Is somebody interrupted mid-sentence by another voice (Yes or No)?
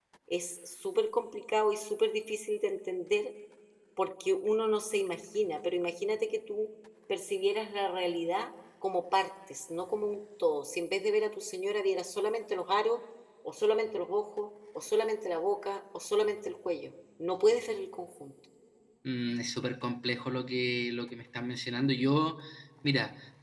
No